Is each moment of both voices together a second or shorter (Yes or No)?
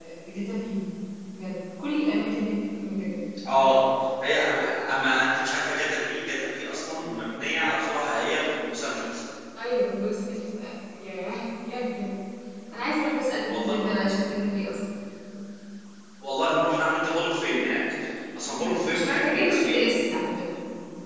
No